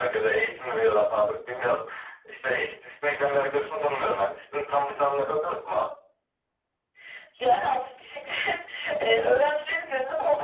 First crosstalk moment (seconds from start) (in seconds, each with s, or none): none